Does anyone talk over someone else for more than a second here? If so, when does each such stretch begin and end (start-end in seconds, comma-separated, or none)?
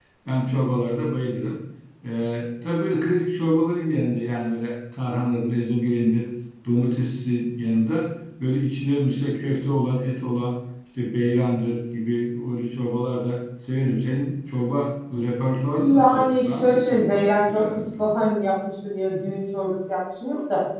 15.7-18.1